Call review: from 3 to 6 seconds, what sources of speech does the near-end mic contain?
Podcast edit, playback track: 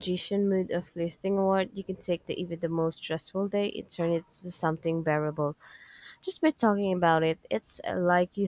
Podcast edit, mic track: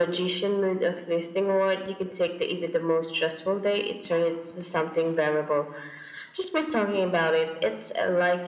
echo only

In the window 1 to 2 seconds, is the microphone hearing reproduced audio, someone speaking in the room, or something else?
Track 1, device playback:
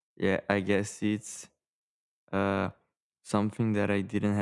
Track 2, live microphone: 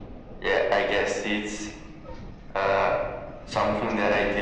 echo only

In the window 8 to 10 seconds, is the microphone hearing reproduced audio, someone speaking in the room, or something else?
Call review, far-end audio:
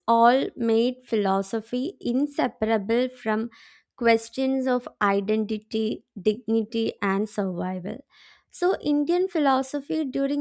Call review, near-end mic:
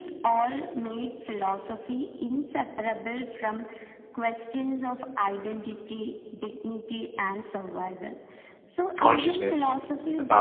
both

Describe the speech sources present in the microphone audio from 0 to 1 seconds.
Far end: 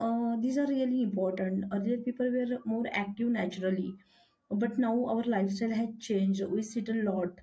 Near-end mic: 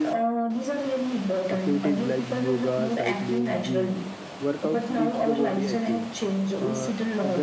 echo only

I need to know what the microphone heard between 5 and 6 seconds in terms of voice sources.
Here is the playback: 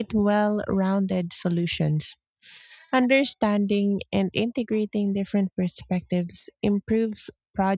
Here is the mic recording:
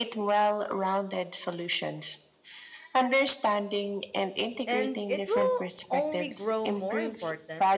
both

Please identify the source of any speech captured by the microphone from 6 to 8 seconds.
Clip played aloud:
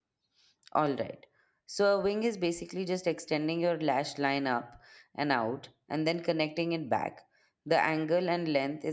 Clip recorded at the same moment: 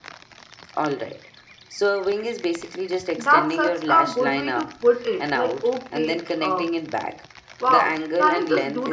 both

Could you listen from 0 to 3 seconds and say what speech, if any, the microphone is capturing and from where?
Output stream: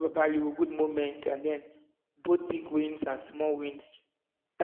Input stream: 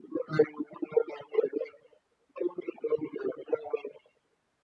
echo only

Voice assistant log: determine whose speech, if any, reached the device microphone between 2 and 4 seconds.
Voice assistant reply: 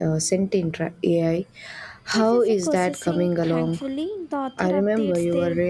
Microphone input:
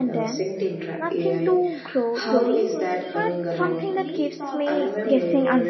both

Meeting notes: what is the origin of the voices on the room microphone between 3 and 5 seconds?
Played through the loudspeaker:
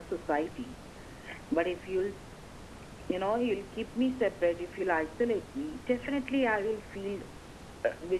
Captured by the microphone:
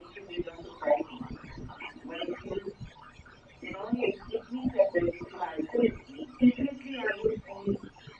echo only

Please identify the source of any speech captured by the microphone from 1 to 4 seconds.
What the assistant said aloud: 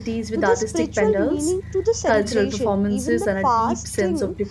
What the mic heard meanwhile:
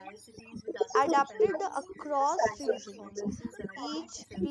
both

